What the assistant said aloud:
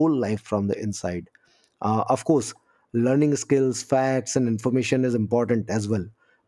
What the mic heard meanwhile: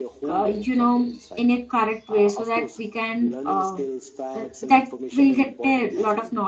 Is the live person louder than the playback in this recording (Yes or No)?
Yes